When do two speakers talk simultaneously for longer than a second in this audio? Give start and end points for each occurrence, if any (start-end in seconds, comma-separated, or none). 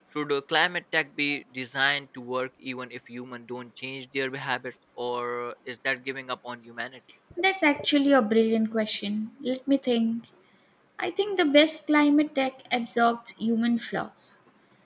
none